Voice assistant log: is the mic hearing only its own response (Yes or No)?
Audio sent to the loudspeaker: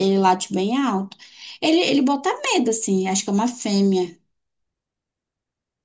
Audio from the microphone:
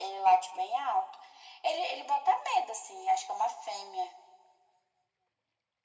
Yes